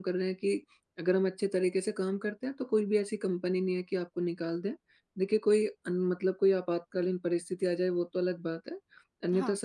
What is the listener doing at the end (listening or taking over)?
listening